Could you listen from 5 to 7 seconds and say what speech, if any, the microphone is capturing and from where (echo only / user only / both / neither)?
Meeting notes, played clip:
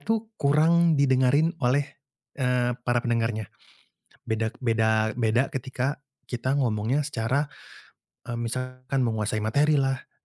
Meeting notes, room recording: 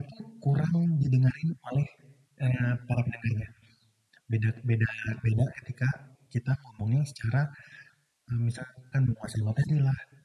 echo only